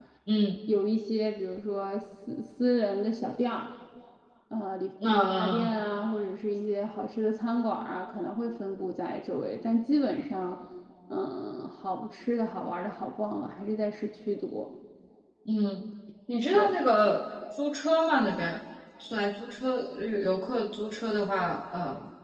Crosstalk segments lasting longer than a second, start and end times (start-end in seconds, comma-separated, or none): none